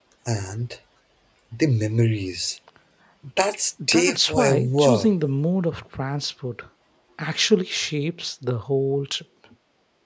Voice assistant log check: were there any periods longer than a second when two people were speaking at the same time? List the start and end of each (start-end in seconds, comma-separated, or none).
3.9-5.1